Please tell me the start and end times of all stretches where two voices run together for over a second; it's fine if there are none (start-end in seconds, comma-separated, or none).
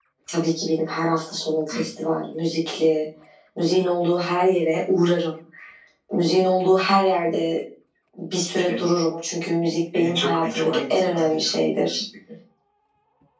9.9-12.0